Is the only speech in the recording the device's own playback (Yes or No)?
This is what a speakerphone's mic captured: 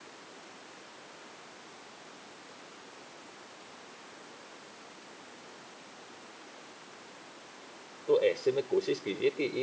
No